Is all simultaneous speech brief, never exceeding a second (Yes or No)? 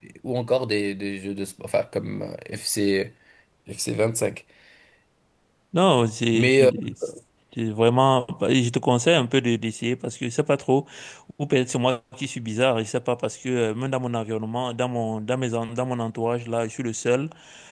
Yes